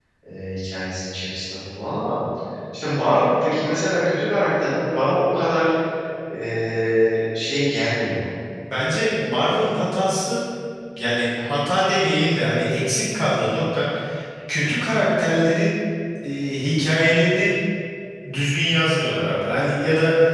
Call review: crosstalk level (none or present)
none